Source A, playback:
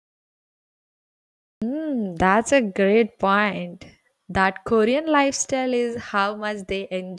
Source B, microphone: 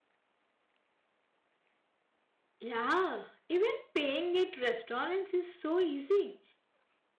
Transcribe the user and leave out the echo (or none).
Yeah, even paying at restaurants is so easy.